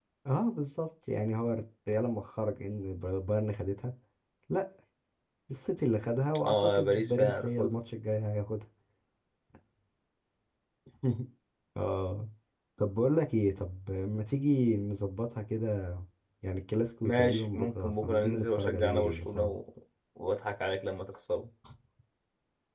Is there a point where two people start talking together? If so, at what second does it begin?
6.5 s

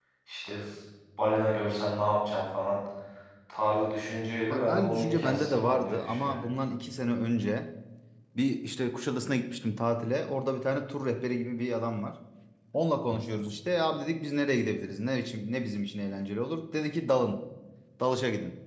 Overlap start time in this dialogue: 4.5 s

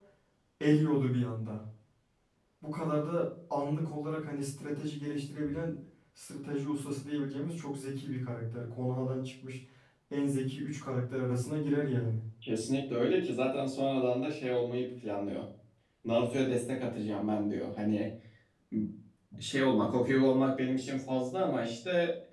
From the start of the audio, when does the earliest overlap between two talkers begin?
none

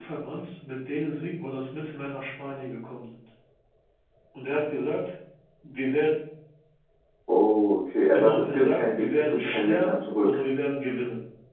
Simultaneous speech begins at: 8.1 s

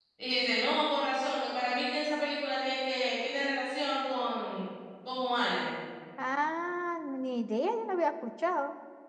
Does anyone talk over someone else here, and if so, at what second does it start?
none

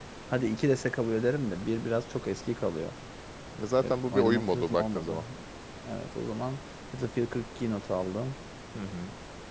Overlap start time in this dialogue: 3.8 s

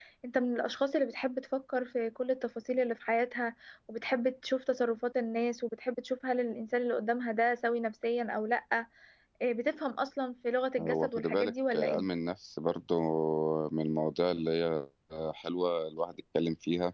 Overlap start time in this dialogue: 10.8 s

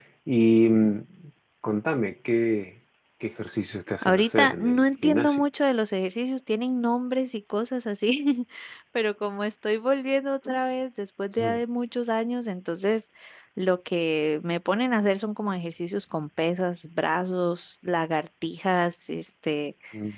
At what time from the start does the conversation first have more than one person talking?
4.0 s

